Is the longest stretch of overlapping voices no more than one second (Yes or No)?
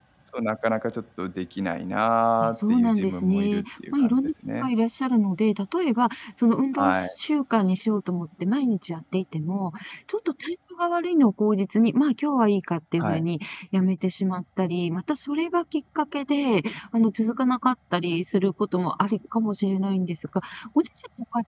No